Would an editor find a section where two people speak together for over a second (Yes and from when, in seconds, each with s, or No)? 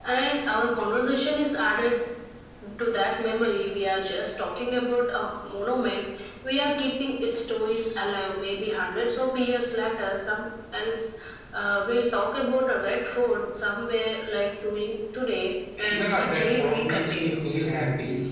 Yes, from 15.9 s